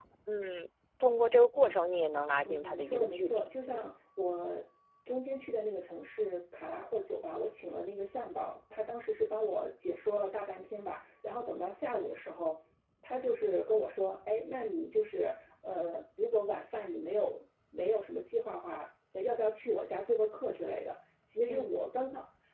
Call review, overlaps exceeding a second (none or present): present